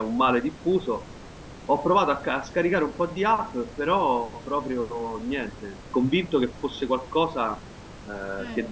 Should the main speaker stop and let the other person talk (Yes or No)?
No